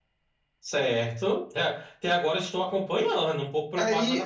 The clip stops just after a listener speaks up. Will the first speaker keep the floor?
No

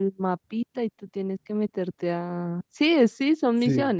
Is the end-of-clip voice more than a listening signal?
Yes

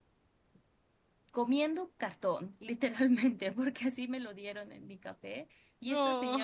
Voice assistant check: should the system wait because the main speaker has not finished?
Yes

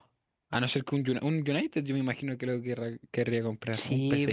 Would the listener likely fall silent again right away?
No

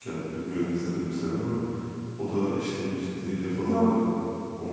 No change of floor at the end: Yes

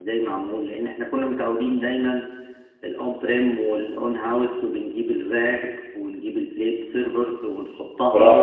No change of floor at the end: No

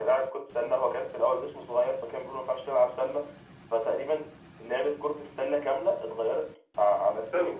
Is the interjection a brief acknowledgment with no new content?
Yes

